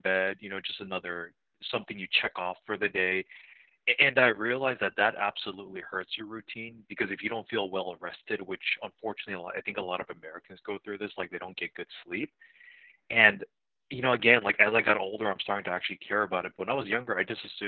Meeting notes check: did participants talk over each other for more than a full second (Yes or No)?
No